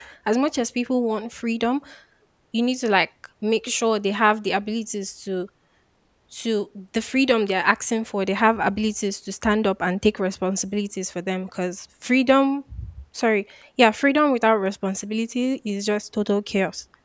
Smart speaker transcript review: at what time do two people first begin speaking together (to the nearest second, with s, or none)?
none